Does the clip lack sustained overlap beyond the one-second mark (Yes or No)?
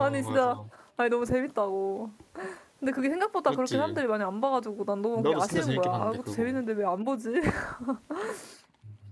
No